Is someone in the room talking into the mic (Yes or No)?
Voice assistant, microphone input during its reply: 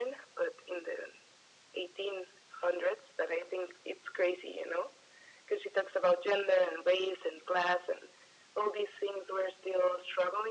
No